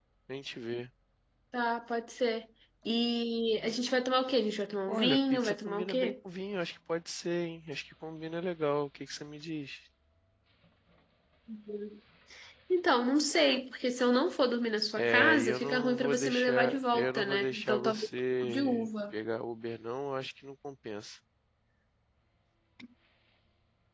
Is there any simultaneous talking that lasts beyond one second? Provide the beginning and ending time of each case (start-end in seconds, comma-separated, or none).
4.9-6.1, 15.0-19.1